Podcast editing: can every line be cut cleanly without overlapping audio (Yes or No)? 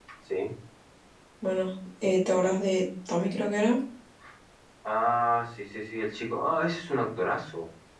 Yes